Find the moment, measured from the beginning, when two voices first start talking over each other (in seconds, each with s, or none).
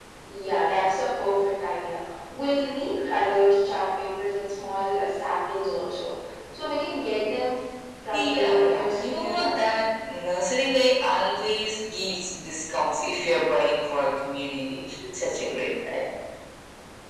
8.1 s